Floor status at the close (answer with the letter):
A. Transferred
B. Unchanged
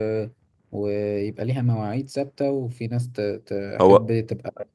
B